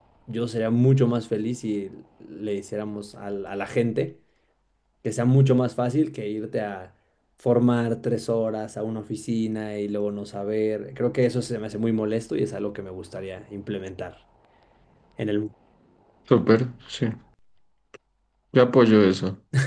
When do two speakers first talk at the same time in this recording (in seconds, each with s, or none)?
none